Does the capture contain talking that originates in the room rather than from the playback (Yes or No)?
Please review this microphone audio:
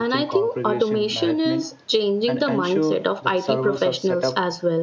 Yes